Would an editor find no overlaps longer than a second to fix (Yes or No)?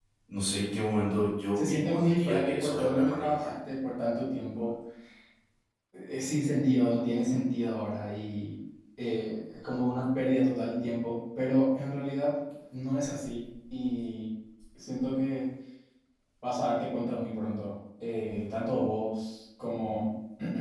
No